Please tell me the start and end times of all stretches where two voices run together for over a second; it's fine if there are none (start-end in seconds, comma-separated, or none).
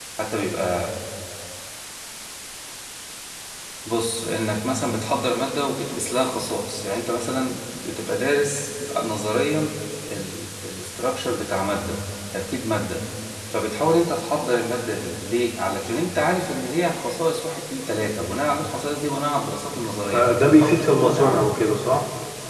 20.1-21.5